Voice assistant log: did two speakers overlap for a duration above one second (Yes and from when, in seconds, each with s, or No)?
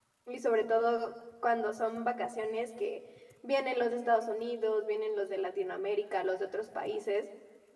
No